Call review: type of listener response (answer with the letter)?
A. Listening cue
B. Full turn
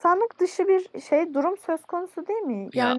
A